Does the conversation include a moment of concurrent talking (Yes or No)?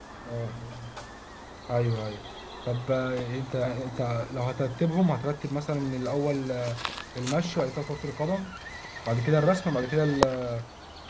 No